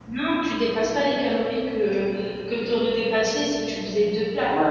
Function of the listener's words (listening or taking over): taking over